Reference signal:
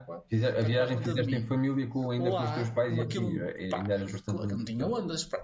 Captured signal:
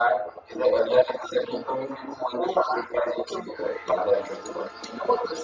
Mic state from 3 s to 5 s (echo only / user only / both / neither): echo only